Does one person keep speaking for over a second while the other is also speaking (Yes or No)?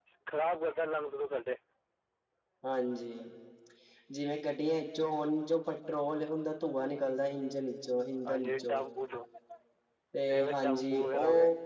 Yes